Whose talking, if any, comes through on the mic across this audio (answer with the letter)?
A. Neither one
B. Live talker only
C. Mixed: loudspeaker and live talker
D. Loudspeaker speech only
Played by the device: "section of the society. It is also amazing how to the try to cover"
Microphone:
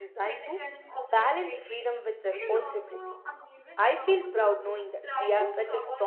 C